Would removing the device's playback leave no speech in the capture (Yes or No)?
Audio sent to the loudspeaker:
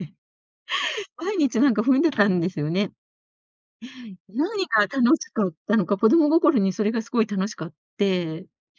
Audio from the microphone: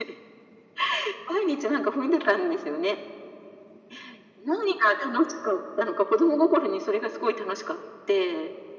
Yes